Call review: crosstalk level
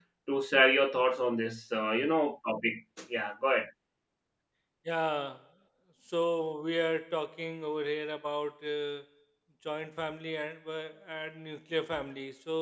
none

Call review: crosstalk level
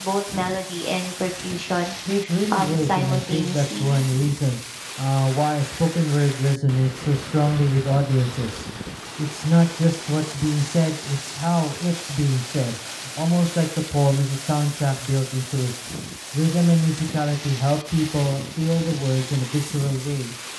present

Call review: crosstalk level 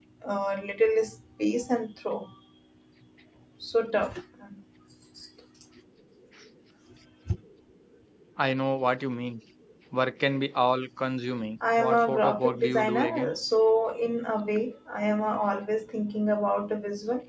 present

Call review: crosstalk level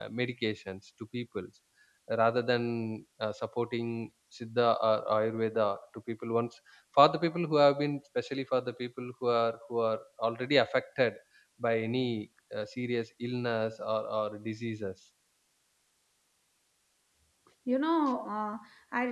none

